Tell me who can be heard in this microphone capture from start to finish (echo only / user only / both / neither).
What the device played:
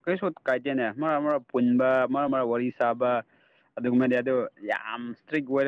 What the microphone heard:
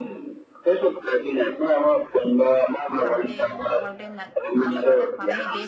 both